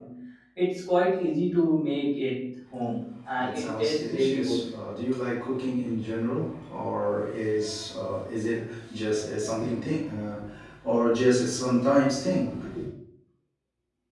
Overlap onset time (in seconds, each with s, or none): 3.4 s